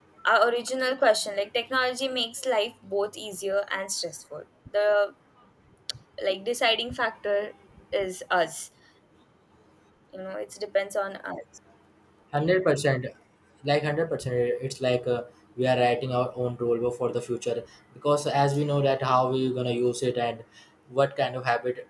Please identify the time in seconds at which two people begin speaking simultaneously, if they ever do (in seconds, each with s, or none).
none